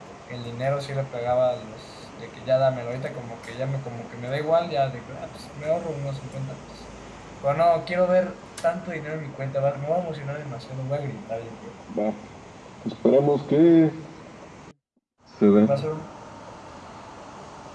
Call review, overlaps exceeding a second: none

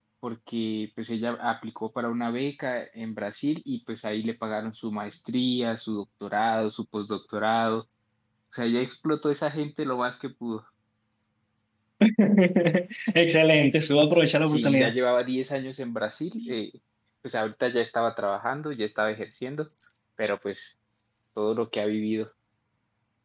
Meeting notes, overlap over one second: none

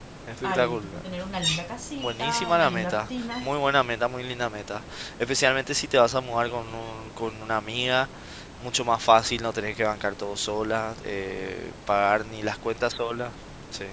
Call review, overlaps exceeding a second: present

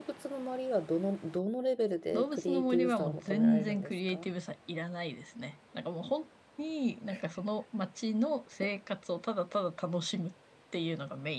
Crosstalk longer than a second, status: present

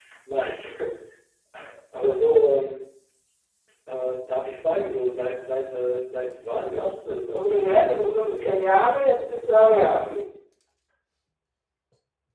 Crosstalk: present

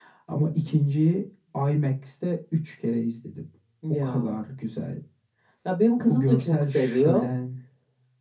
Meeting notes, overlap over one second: present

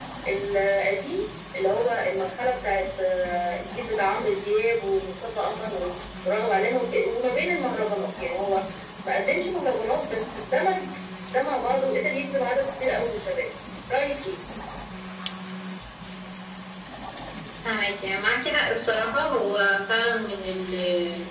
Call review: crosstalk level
none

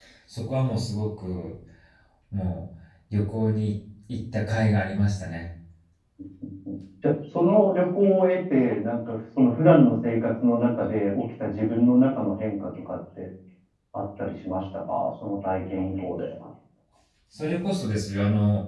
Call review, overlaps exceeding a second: none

